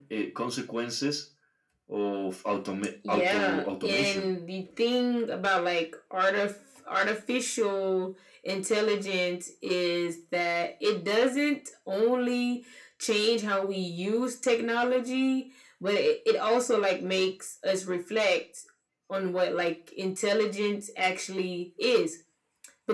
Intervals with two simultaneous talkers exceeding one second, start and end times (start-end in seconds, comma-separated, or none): 3.1-4.3